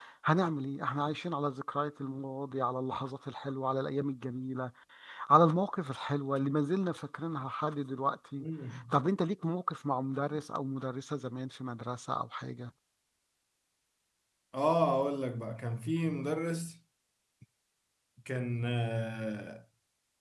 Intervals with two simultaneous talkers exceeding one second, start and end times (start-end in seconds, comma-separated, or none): none